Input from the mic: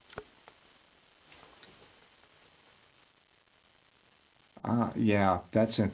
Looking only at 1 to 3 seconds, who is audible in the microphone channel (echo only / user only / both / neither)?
neither